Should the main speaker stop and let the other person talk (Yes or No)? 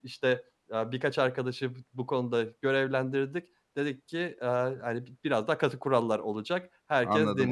Yes